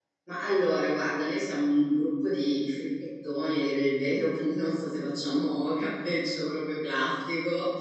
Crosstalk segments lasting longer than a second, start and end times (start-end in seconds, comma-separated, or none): none